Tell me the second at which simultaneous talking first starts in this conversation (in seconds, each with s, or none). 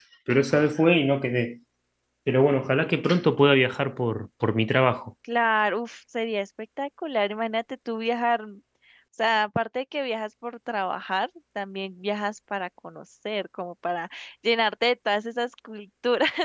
none